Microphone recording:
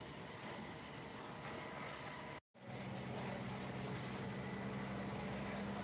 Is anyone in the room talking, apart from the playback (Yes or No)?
No